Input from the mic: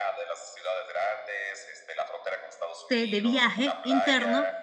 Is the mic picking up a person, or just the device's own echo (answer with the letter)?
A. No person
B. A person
B